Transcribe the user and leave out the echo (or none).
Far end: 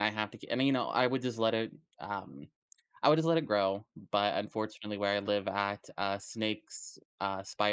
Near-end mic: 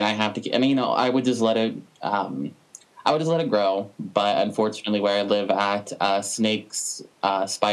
none